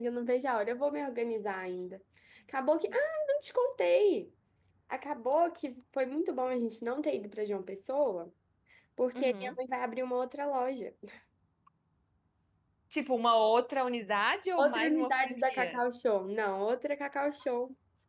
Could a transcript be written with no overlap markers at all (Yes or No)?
No